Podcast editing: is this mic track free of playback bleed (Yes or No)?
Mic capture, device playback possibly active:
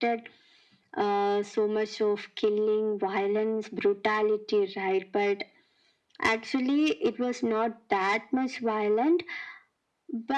No